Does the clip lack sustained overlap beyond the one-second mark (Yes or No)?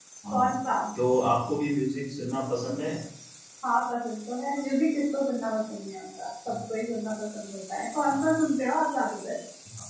Yes